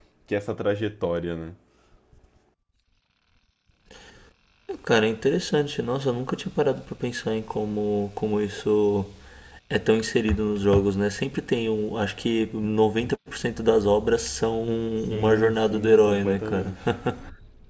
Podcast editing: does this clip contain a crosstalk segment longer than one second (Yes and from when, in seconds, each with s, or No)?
Yes, from 15.1 s